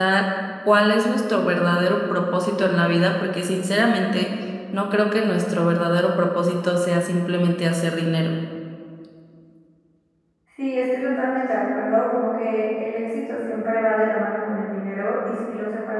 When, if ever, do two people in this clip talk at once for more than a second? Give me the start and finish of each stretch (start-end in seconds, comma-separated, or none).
none